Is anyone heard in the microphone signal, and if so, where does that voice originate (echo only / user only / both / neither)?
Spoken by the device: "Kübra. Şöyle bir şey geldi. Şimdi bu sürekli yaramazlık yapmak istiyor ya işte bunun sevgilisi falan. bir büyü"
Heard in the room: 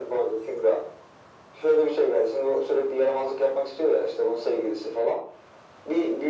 echo only